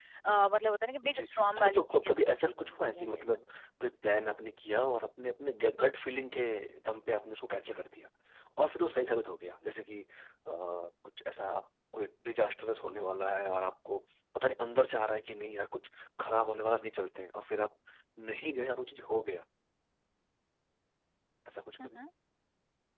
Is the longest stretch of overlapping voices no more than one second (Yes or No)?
No